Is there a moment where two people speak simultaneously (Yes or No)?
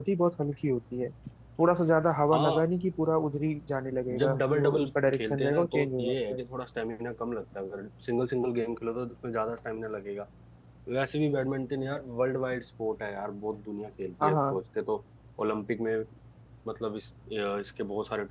Yes